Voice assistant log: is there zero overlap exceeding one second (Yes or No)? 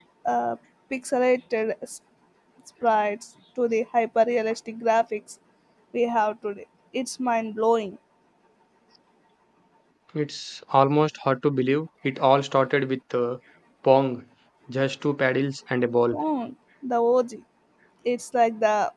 Yes